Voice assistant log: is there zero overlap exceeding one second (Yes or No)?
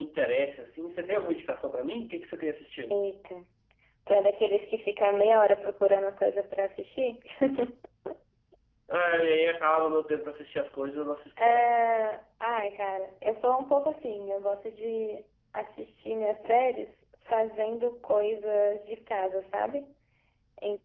Yes